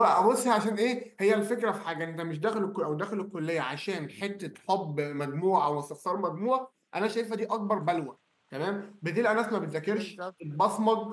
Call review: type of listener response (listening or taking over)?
listening